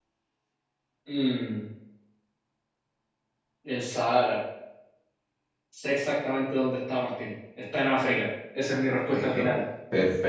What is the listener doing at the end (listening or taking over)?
taking over